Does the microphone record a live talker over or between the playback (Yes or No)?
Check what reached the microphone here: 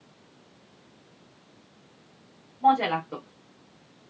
Yes